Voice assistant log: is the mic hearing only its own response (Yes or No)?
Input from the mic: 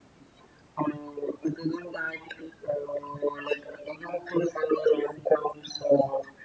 Yes